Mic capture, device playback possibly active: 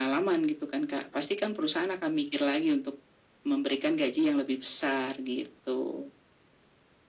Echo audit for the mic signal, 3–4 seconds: echo only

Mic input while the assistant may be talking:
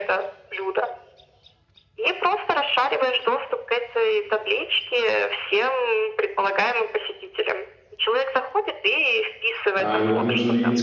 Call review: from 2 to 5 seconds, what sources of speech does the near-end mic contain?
echo only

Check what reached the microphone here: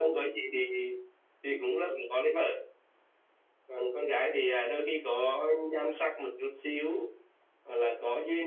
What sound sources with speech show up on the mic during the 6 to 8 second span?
echo only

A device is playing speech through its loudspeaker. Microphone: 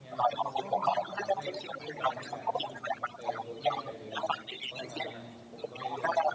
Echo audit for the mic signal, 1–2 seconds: both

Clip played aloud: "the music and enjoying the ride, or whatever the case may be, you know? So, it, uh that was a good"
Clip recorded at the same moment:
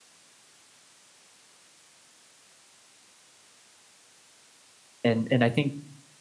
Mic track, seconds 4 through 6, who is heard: user only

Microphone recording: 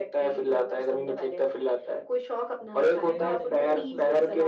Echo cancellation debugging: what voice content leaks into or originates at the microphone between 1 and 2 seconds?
echo only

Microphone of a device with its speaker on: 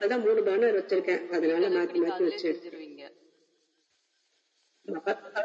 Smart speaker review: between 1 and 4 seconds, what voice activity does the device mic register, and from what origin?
both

